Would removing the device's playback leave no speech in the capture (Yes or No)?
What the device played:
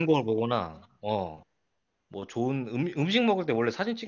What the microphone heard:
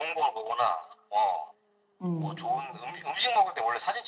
No